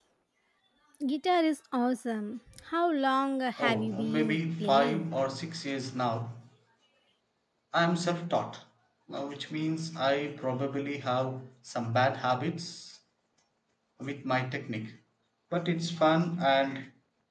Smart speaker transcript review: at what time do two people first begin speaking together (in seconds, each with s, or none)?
3.6 s